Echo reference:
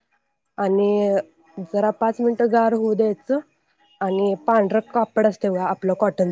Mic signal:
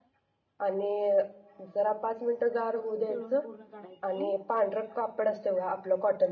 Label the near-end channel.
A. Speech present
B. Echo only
A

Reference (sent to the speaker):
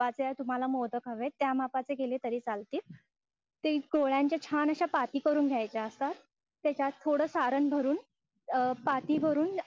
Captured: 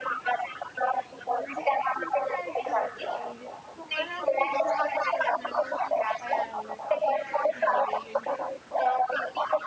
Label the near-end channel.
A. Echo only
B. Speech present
B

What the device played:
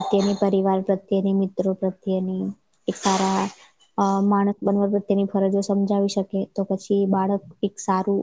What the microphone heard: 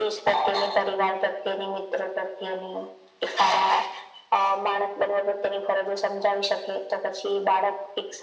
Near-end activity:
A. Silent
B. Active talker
A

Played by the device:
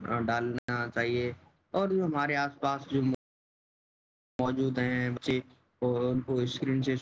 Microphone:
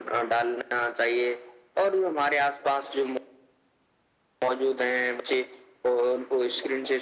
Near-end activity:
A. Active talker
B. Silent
B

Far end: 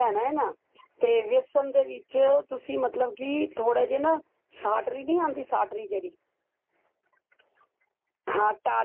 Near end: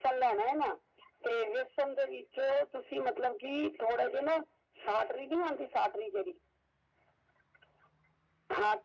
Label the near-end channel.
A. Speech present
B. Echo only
B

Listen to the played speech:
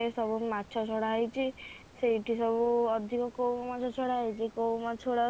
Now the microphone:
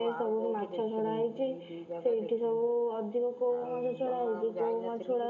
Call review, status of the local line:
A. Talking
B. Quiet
A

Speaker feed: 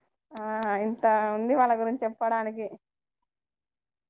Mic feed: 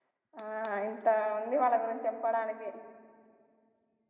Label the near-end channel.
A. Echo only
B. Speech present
A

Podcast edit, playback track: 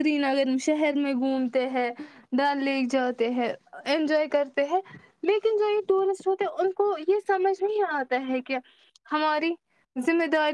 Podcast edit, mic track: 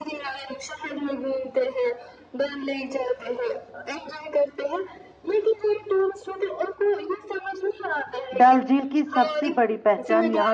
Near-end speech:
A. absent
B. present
B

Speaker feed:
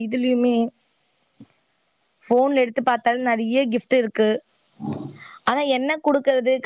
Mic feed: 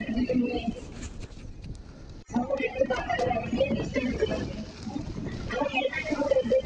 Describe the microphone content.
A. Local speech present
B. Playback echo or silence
B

